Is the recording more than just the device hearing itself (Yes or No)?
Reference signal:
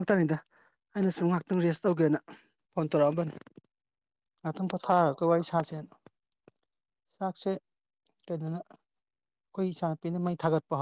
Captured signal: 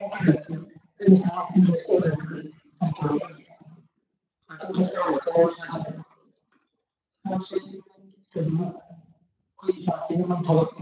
No